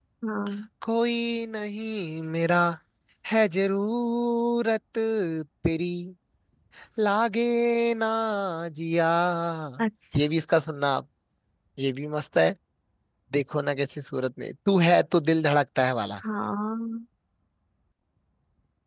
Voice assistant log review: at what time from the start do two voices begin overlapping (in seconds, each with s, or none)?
none